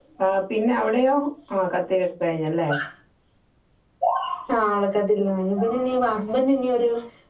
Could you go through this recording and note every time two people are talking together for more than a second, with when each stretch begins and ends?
none

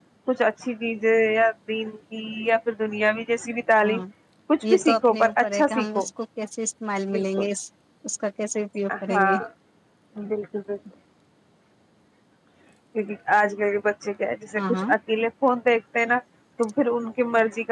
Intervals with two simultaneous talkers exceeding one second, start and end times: 4.7-6.0

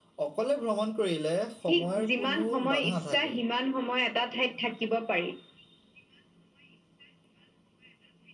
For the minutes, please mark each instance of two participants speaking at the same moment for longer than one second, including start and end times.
1.7-3.4

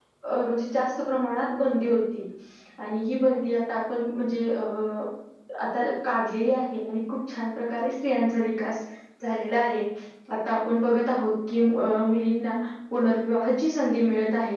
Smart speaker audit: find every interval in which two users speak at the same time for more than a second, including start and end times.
none

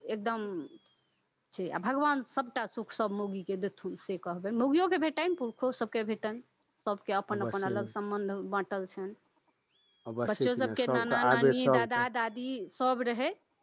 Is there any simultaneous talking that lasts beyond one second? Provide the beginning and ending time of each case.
10.3-12.0

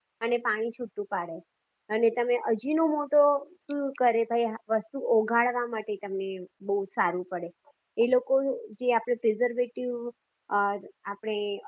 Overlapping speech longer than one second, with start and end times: none

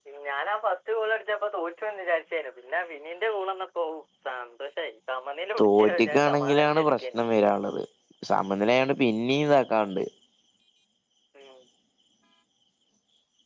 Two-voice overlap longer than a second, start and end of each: 5.6-7.2

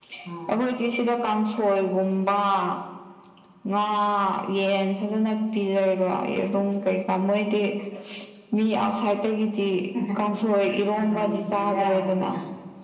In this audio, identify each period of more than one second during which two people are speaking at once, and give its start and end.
11.0-12.3

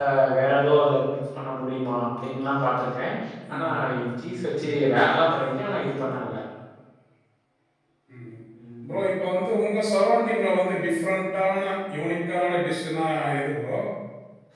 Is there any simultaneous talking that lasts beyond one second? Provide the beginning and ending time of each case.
none

